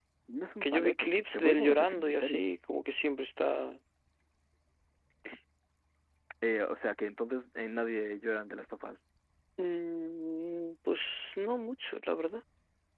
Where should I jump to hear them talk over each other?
0.6 s

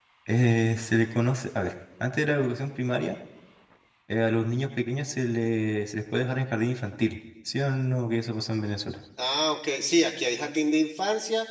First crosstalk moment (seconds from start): none

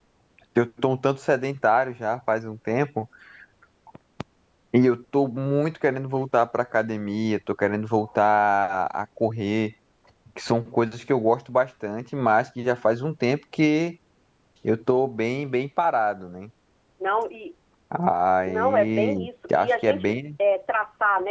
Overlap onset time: 18.5 s

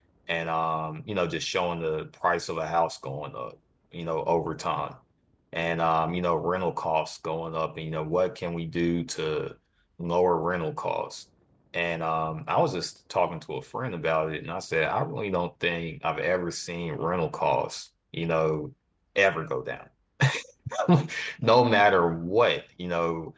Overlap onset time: none

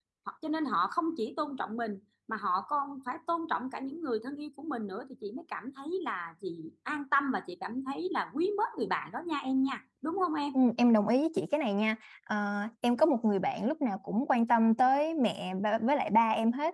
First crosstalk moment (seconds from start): none

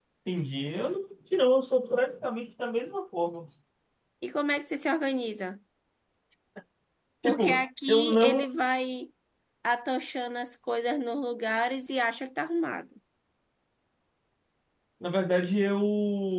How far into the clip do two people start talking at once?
7.2 s

